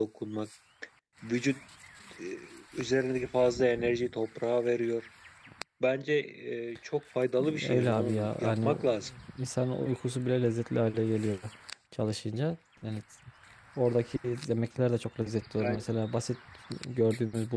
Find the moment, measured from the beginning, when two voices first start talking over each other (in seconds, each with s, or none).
7.4 s